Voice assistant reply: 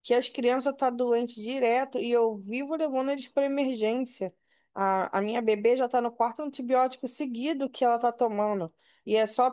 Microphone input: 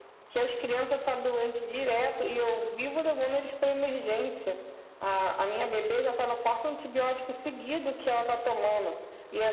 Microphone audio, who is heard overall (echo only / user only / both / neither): echo only